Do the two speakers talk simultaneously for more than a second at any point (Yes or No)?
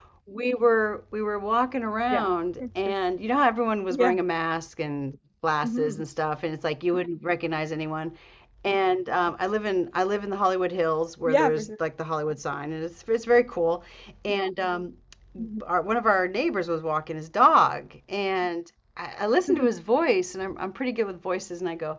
No